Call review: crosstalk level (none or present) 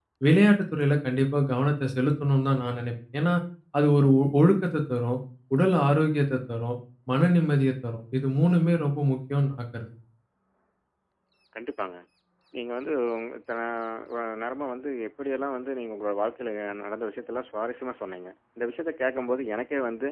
none